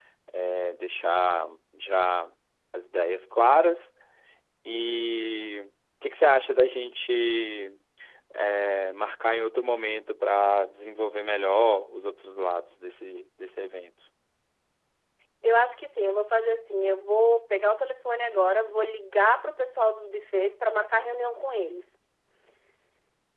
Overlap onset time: none

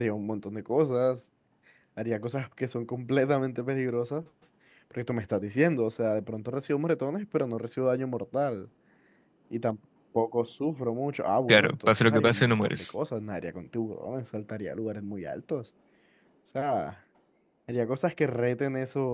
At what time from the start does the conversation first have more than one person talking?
11 s

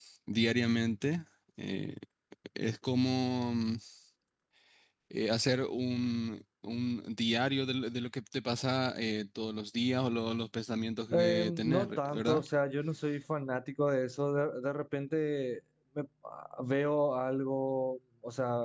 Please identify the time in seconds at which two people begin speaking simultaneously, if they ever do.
11 s

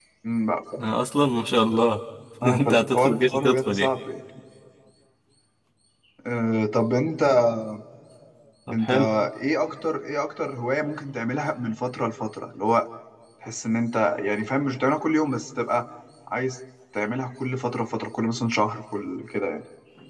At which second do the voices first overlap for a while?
3 s

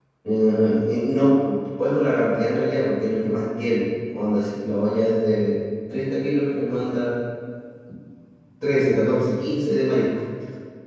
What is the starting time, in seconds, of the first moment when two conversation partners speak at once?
none

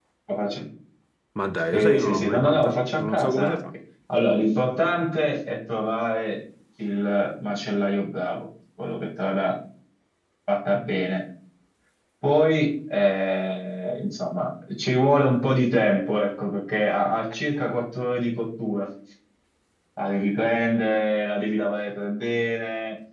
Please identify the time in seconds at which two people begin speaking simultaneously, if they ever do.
2 s

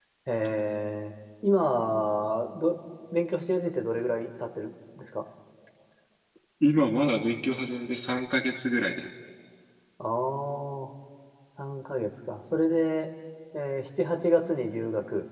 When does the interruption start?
none

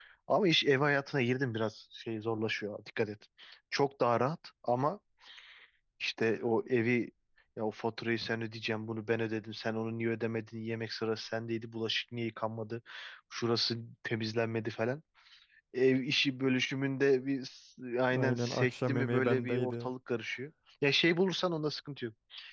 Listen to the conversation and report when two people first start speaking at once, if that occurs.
18 s

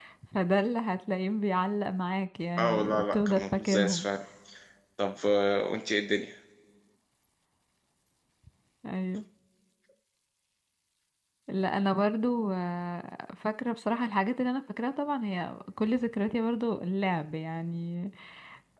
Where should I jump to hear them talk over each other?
3 s

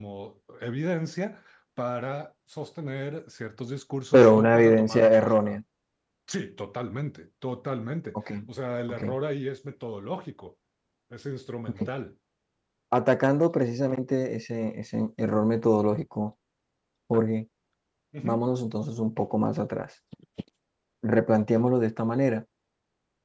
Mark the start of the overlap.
4 s

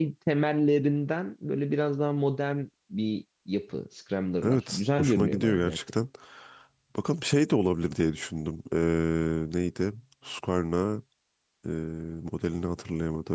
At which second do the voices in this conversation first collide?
4 s

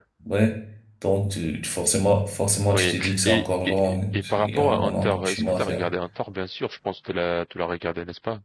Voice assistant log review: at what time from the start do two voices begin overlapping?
3 s

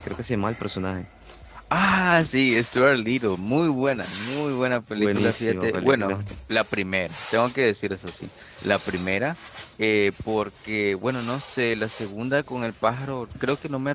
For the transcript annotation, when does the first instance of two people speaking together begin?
5 s

